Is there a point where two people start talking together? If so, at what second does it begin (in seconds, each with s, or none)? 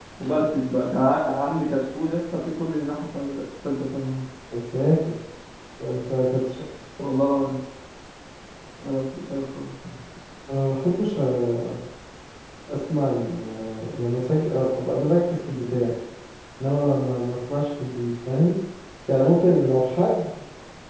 none